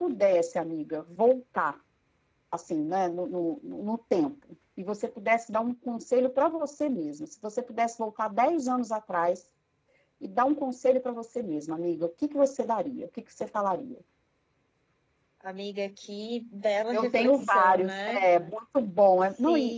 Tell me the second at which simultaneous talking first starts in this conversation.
16.9 s

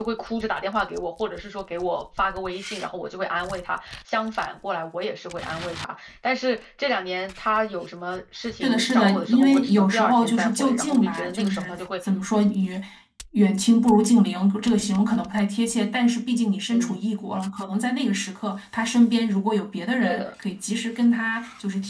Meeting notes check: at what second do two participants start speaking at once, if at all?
8.6 s

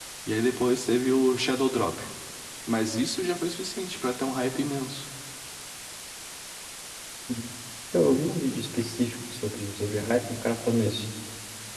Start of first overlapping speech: none

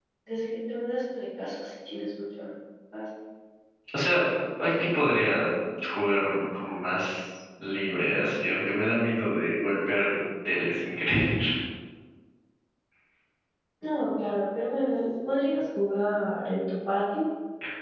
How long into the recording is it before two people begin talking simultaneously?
none

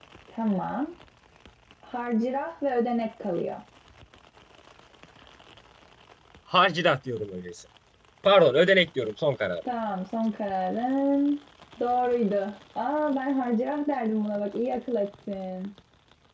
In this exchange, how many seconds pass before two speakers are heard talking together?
none

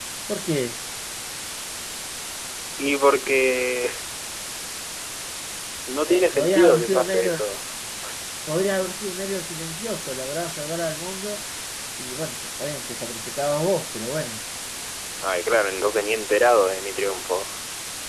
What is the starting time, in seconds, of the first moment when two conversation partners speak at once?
6.1 s

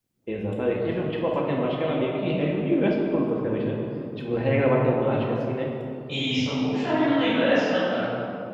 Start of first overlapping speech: none

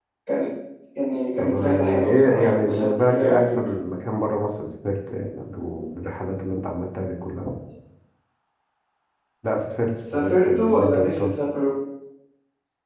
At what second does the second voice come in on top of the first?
1.4 s

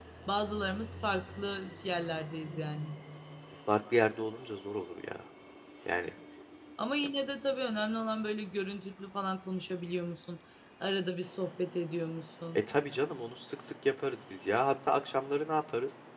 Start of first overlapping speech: none

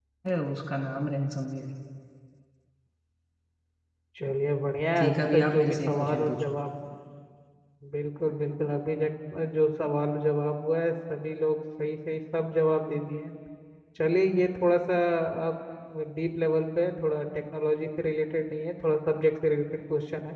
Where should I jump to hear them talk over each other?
5.0 s

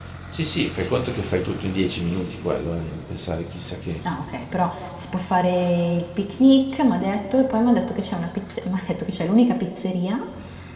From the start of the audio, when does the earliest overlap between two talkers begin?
none

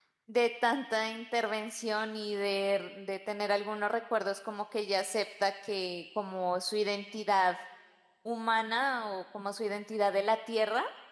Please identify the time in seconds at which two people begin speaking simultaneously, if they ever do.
none

